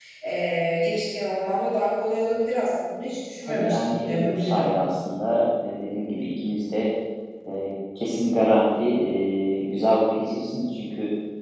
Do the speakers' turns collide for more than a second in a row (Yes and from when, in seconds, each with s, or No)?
Yes, from 3.4 s